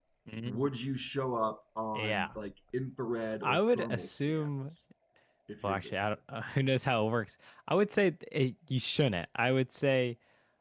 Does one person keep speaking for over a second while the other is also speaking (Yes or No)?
Yes